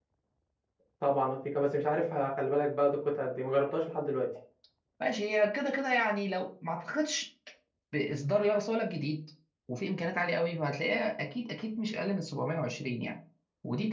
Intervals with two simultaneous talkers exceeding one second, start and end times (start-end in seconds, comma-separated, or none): none